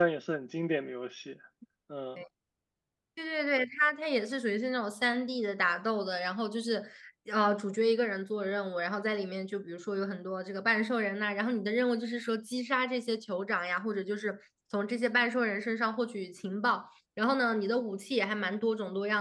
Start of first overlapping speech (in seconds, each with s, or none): none